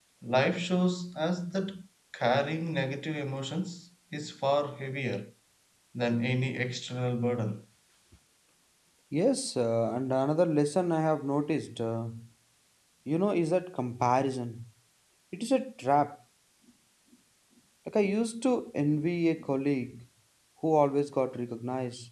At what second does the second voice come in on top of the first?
none

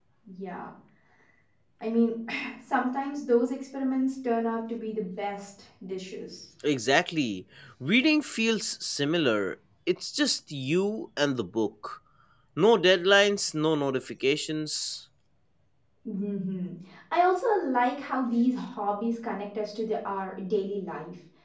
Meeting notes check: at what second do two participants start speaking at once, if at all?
none

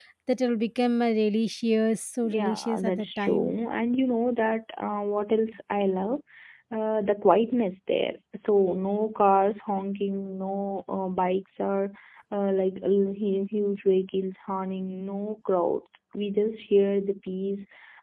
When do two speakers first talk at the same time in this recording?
2.2 s

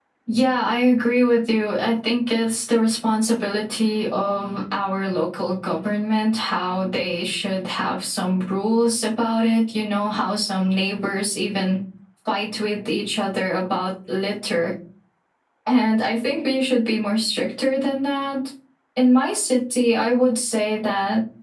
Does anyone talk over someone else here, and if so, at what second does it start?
none

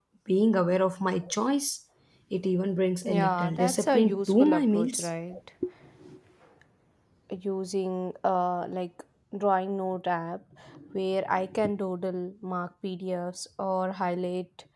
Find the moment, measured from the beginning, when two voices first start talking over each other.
3.0 s

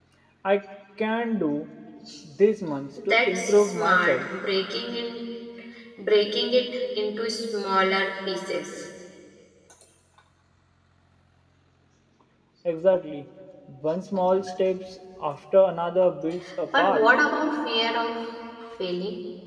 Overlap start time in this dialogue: 3.1 s

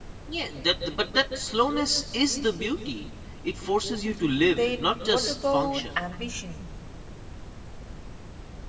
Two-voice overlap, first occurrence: 4.5 s

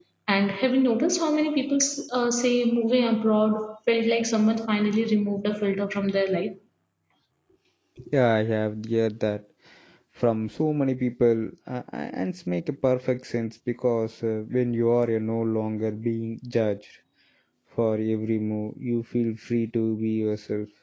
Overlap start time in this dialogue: none

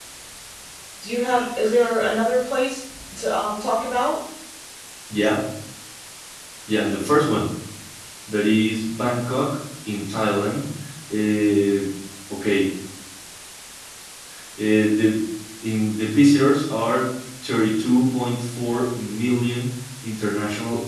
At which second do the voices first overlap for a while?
none

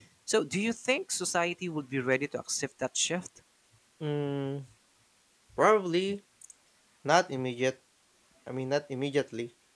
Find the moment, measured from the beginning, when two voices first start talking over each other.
none

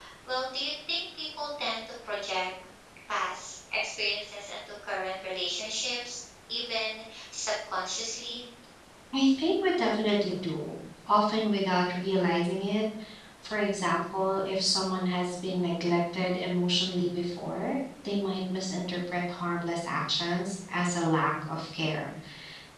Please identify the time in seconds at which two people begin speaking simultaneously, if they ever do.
none

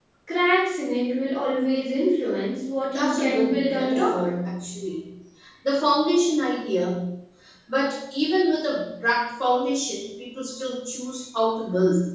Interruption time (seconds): 2.9 s

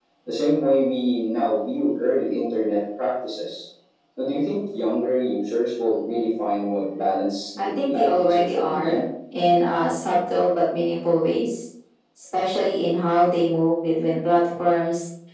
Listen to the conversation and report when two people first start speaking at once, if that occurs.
7.6 s

